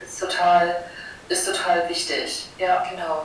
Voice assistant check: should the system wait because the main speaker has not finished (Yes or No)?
No